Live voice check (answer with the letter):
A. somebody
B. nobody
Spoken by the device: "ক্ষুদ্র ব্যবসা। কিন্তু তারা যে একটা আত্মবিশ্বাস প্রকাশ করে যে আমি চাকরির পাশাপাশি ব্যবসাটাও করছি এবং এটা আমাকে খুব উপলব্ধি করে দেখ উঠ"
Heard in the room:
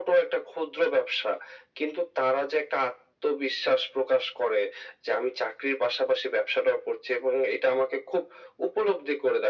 B